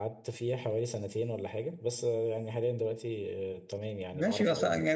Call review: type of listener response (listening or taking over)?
taking over